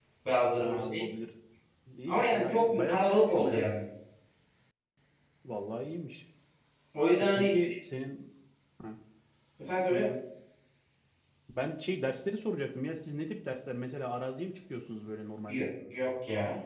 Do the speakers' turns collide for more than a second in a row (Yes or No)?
Yes